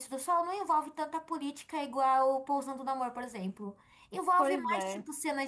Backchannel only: Yes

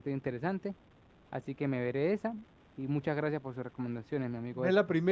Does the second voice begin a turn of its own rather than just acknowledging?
Yes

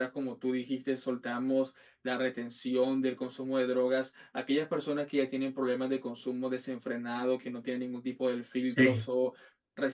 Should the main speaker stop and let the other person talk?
No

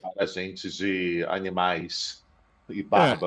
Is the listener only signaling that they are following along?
No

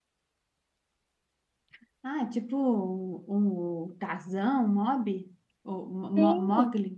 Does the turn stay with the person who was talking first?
No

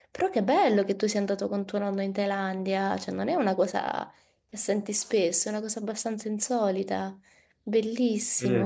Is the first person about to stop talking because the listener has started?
Yes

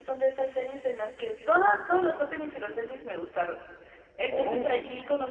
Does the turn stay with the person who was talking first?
Yes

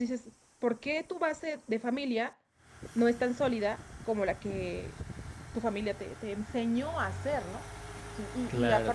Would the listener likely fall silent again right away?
Yes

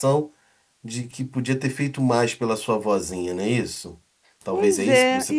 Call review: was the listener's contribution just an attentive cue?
No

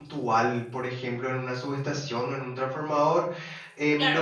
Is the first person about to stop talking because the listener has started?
Yes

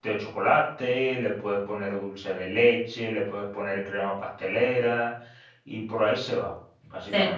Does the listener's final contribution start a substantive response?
Yes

